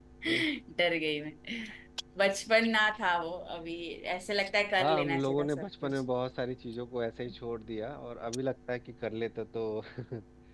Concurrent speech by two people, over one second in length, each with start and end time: 4.8-6.0

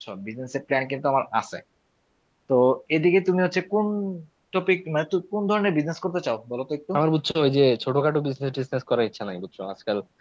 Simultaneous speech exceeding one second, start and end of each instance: none

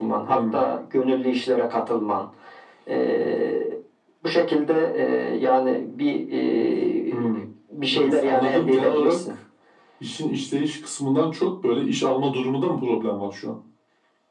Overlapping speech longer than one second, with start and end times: 7.9-9.2

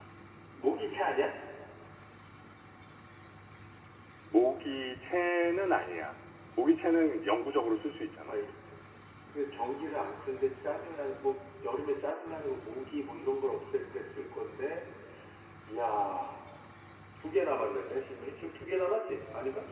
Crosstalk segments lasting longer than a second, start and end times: none

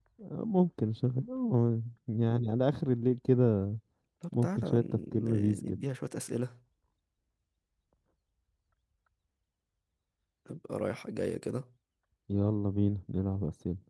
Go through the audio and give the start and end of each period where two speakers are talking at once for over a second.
4.3-5.8

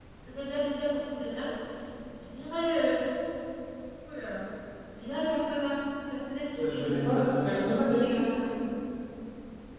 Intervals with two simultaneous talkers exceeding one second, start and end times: none

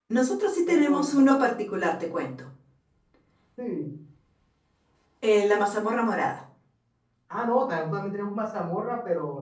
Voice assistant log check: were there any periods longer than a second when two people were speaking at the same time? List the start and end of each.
none

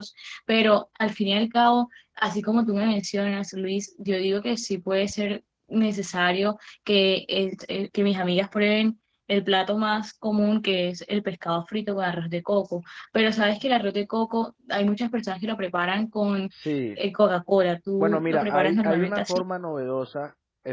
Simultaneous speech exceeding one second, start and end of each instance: 18.0-19.4

